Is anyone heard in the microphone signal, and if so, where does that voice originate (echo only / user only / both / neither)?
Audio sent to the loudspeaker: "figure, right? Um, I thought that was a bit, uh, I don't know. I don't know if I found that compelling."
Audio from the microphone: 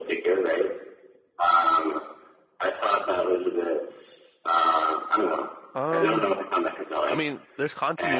both